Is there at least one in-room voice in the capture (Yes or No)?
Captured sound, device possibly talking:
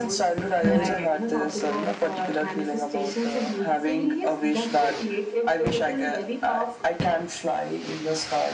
Yes